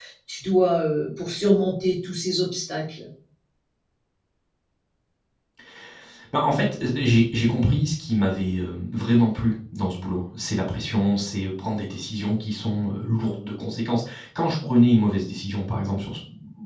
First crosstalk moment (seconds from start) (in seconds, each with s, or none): none